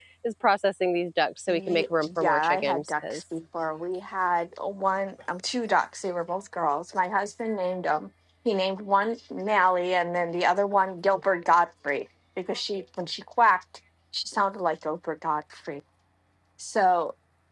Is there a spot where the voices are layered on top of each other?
Yes, from 1.5 s

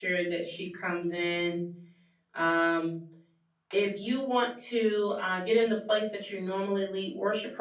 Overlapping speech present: No

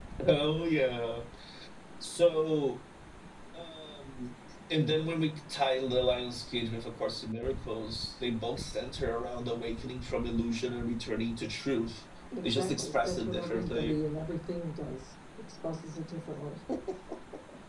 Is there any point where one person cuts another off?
Yes, from 12.3 s

